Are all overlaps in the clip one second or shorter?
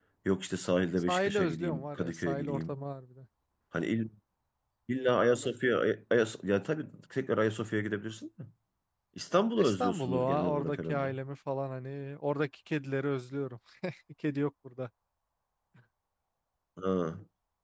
No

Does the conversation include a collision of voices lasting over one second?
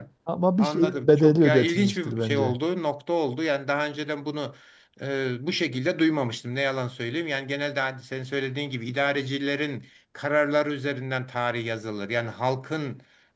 Yes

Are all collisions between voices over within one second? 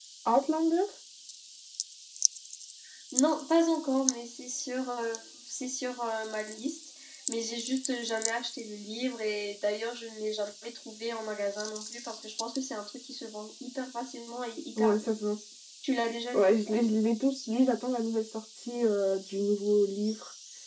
Yes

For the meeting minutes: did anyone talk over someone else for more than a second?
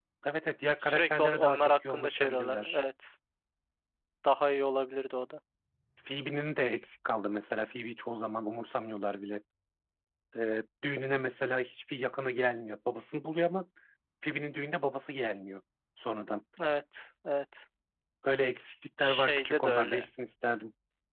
Yes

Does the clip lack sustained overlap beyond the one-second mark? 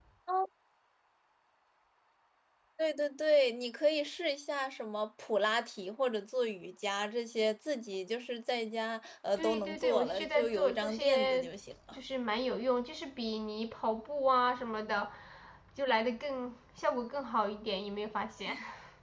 No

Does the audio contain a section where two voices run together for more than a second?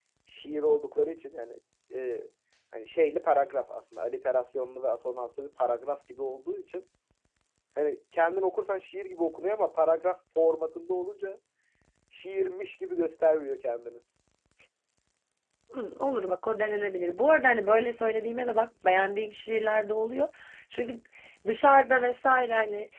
No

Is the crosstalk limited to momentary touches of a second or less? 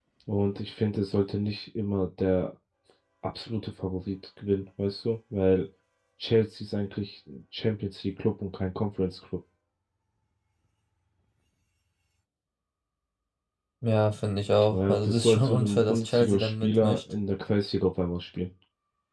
No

